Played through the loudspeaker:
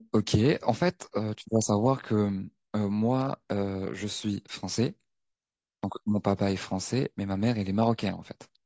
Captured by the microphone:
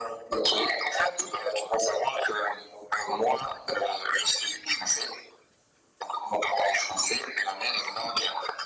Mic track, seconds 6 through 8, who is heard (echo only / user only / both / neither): echo only